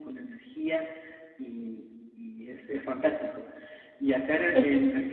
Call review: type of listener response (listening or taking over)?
listening